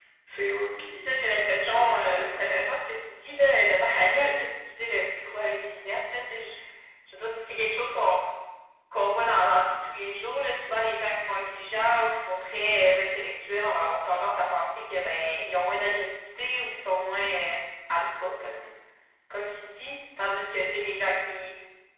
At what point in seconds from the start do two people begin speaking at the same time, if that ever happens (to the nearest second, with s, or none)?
1 s